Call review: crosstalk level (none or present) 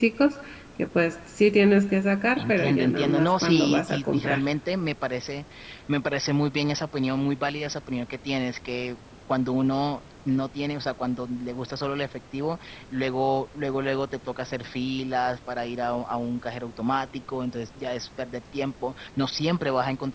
present